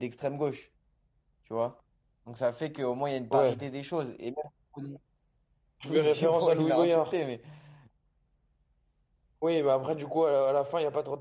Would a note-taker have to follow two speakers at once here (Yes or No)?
Yes